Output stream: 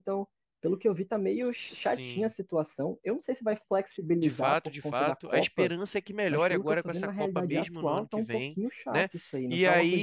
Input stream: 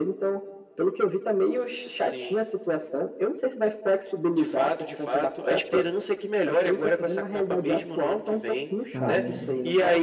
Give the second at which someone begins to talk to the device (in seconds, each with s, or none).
8.9 s